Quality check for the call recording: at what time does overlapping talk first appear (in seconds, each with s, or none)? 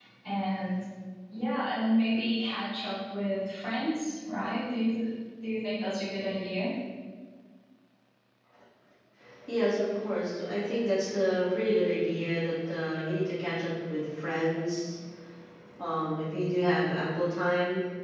none